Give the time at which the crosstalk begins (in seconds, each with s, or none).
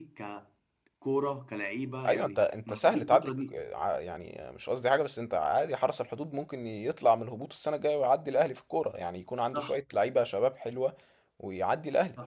2.1 s